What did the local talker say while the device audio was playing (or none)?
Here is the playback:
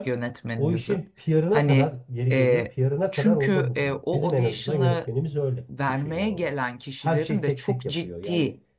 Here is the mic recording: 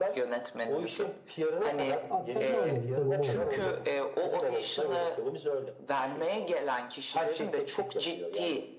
abi sen ne anladıysan onu oyna diyor.